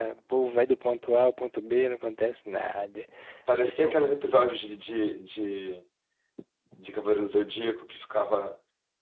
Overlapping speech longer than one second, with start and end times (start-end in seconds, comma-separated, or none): none